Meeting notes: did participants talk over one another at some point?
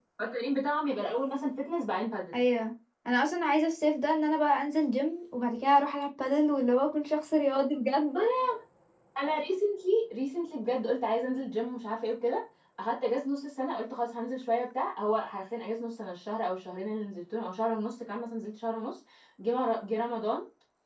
No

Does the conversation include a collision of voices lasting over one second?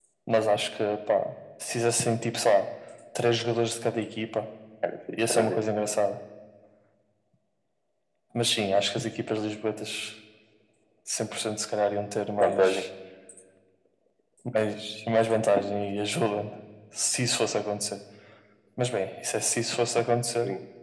No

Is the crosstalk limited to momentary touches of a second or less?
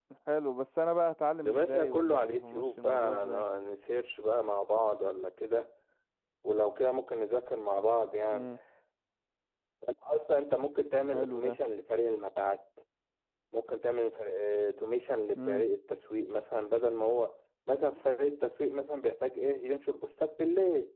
No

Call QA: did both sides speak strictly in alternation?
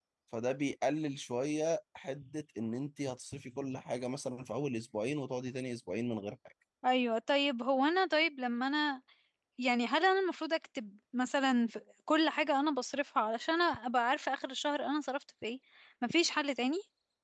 Yes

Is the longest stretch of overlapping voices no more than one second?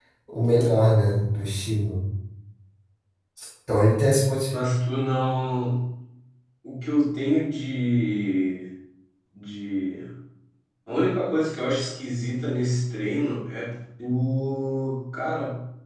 Yes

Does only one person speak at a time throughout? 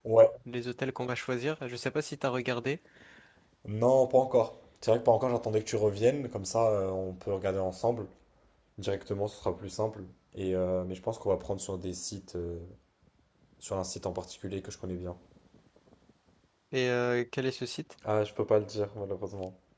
Yes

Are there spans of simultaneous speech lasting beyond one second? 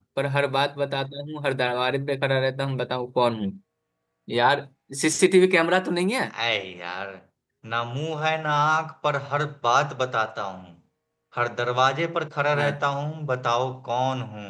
No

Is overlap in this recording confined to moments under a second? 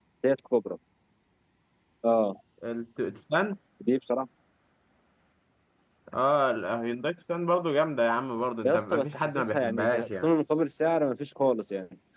No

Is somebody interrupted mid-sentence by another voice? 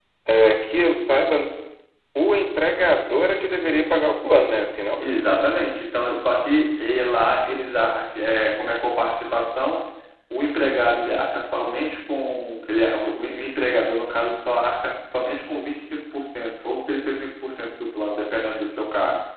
No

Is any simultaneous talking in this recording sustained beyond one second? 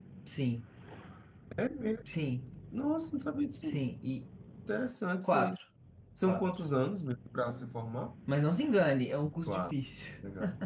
No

